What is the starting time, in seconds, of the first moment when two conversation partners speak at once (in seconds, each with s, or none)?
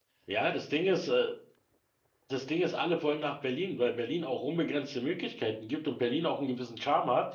none